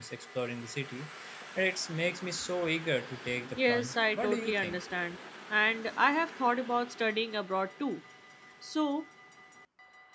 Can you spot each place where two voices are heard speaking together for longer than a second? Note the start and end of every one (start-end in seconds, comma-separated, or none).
3.6-4.8